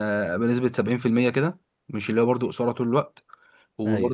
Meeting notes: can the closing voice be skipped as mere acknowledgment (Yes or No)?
Yes